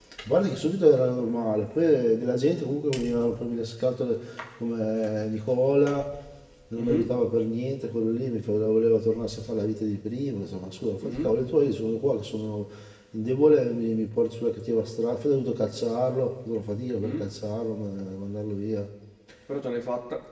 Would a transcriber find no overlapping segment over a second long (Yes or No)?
Yes